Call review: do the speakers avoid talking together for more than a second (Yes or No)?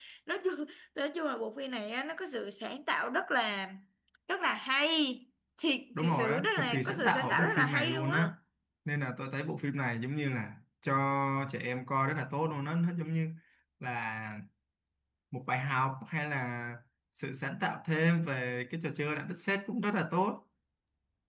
No